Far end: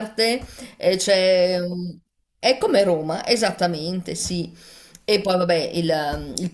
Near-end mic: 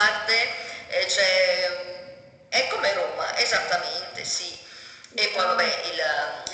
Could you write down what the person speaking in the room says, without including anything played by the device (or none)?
una